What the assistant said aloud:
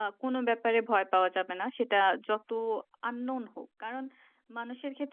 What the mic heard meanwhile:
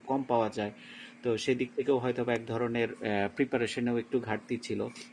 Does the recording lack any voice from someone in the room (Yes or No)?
No